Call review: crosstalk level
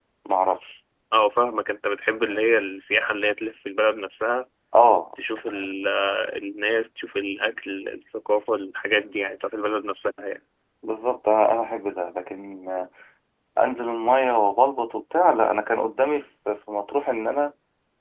none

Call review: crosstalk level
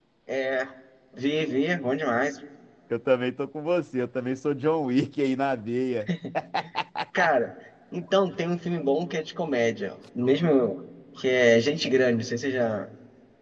none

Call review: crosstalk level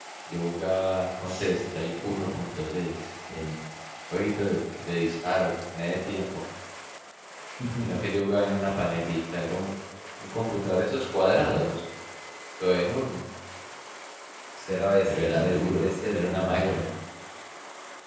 present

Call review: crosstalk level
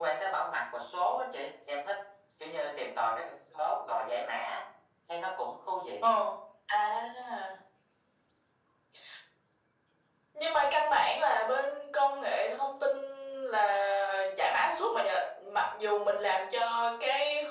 none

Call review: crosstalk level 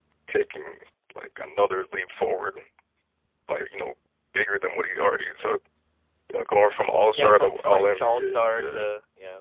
present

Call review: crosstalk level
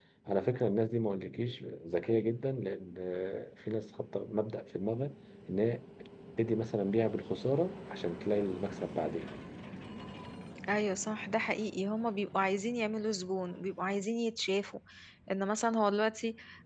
none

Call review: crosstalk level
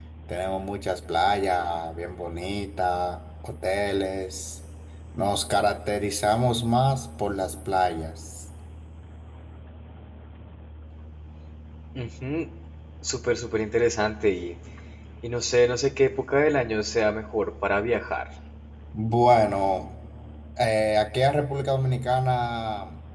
none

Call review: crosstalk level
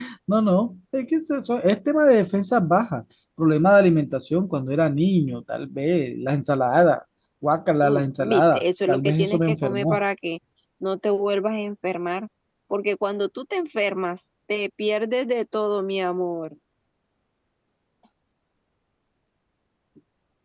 present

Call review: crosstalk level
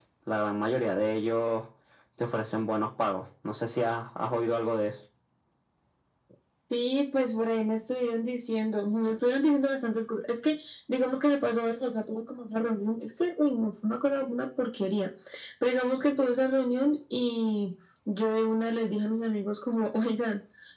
none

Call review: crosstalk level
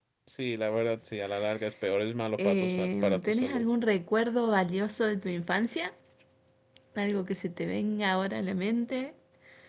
present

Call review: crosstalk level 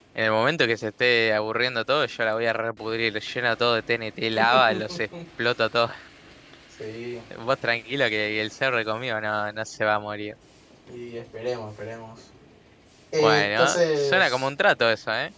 present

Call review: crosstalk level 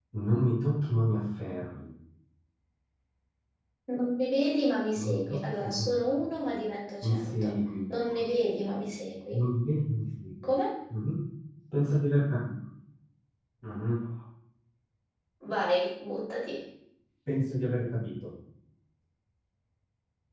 present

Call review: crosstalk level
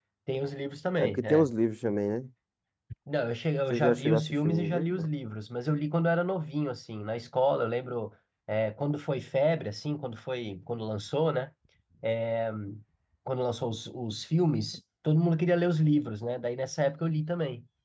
present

